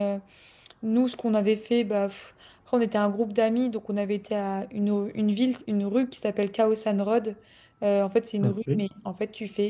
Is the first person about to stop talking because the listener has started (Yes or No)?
No